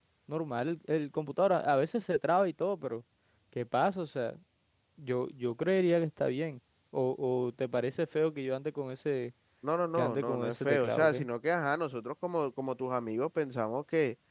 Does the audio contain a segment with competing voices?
Yes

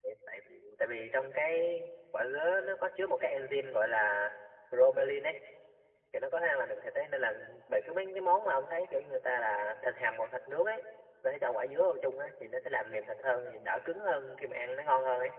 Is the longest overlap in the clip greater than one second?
No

